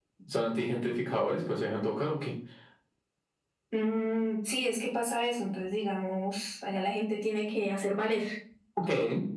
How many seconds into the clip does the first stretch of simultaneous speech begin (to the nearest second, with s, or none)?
none